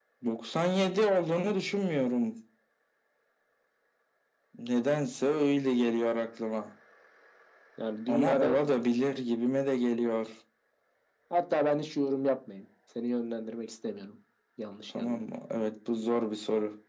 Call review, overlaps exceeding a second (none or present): none